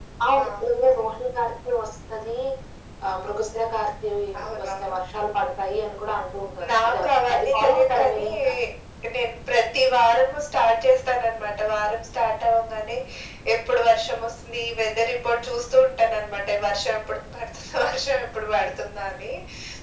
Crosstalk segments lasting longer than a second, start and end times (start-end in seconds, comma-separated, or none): 6.7-8.3